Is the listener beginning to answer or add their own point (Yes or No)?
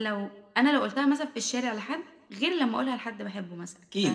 Yes